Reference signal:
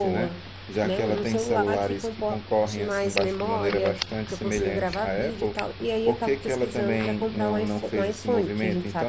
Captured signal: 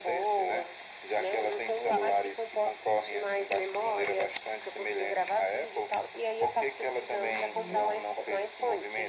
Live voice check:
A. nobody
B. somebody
B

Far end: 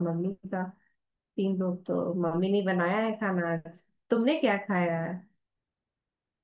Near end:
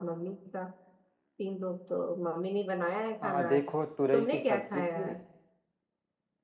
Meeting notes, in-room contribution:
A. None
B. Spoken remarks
B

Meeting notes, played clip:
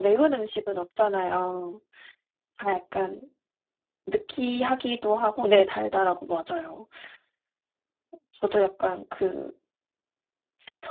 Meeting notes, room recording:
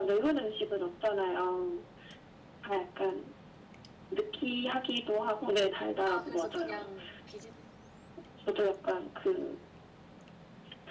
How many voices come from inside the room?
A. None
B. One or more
B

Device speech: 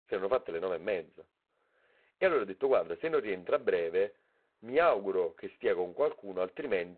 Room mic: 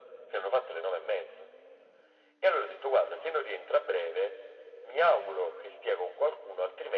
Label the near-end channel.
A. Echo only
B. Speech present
A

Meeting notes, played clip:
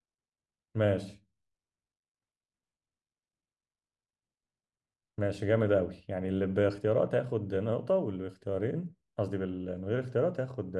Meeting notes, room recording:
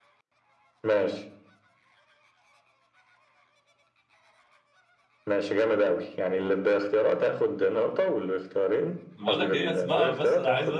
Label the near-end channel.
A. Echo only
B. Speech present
B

